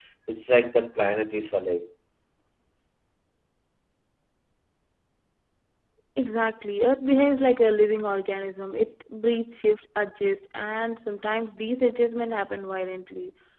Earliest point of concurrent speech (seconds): none

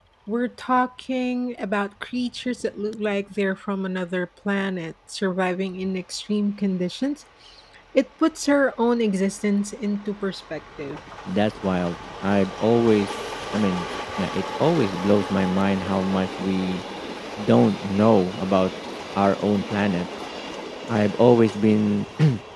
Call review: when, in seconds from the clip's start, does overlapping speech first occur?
none

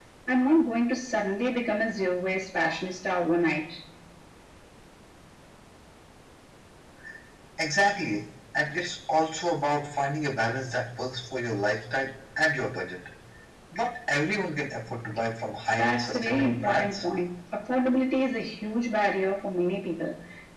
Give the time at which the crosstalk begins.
15.7 s

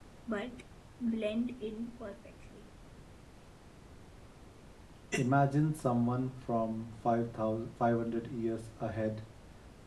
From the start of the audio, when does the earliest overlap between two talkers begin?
none

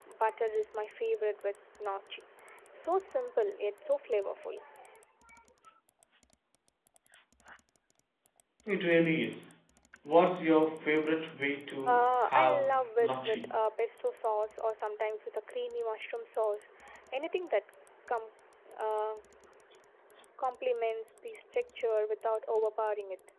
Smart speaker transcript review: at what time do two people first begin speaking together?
11.9 s

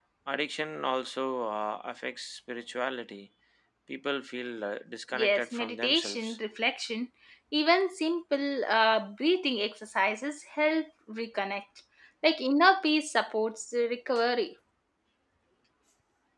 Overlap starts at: 5.1 s

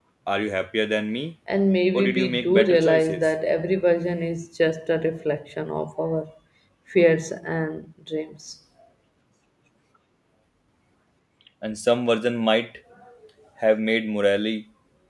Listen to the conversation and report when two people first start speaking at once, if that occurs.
1.9 s

